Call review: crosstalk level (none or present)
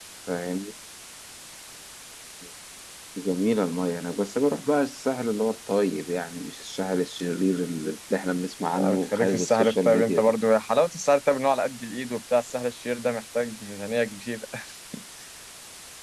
present